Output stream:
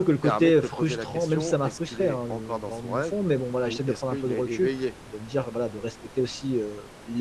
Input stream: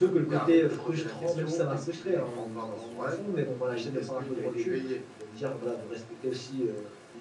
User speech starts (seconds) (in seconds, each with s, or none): none